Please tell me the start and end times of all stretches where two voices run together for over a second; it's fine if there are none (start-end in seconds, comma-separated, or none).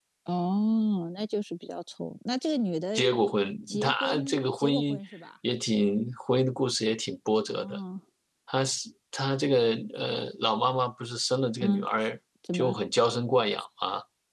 3.7-5.0